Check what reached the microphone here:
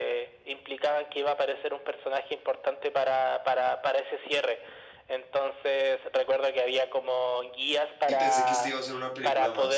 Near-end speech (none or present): present